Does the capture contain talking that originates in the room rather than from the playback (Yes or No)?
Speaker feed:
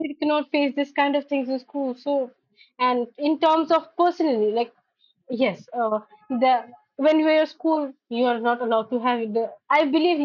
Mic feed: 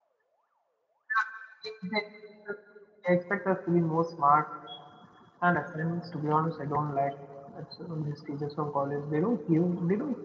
Yes